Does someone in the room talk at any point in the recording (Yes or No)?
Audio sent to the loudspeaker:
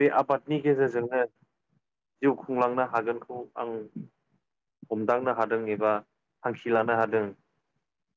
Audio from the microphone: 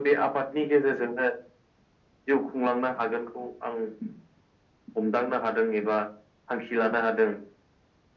No